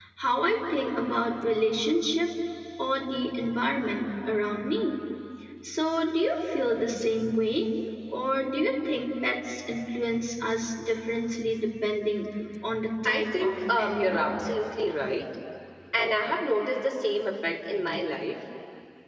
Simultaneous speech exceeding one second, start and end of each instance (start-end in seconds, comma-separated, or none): 13.1-14.3